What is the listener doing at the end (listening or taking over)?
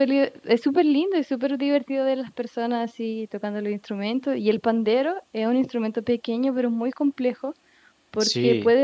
listening